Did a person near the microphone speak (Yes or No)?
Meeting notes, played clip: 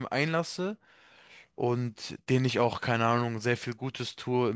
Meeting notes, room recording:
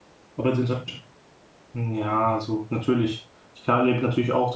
Yes